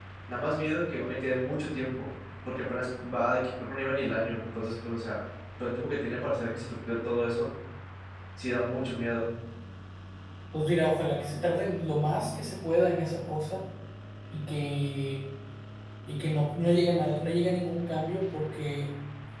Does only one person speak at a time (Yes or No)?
Yes